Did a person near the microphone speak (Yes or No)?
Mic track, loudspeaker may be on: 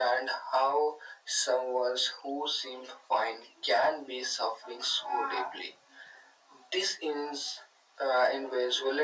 No